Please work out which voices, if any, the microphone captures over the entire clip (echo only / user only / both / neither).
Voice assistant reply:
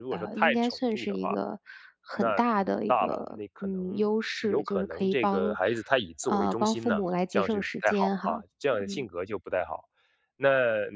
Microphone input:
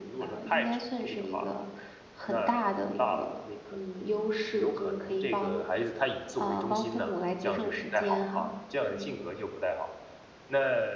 echo only